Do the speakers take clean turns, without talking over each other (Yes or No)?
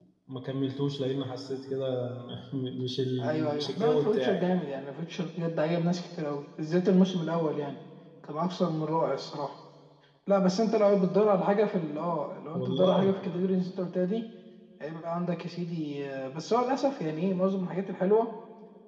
No